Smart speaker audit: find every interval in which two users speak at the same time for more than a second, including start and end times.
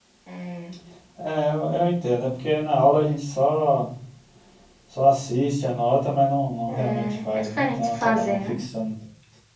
6.7-8.5

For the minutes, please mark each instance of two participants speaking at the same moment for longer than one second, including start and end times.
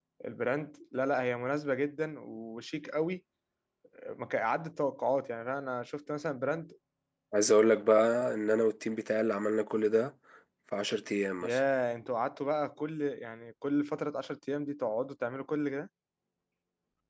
none

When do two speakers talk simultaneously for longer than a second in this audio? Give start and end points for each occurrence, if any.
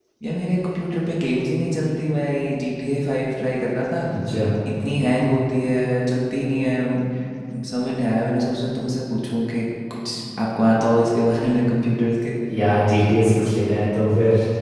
none

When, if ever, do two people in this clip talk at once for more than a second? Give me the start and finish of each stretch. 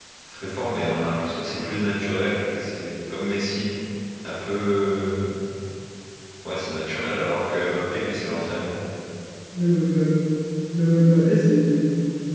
none

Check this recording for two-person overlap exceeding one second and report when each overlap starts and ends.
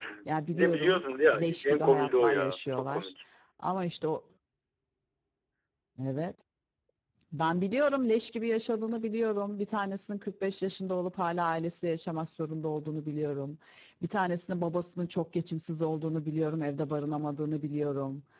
1.4-3.1

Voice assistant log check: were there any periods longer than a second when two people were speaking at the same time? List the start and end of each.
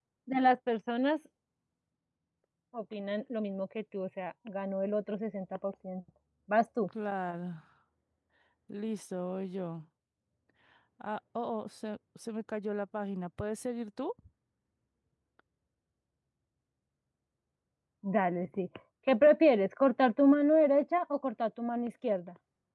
none

